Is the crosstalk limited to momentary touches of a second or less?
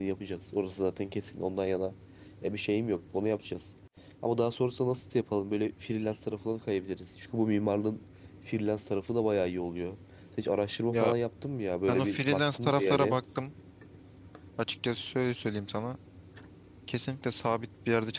No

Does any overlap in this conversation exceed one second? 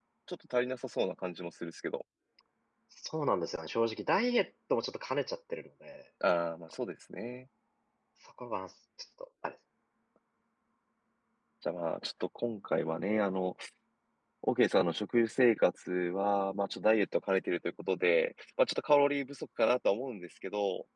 No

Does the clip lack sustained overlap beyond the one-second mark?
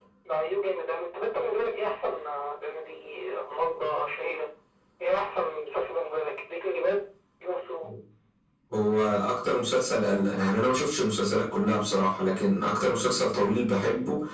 Yes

